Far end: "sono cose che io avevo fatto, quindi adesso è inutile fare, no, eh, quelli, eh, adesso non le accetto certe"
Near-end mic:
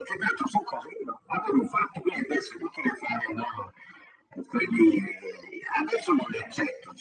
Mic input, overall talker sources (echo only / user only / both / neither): echo only